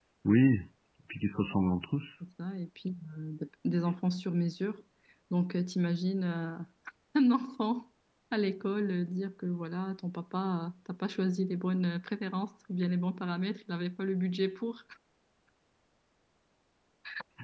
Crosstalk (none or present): none